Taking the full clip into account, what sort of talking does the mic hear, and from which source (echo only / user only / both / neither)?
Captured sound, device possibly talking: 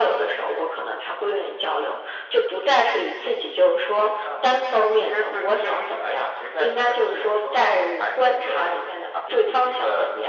echo only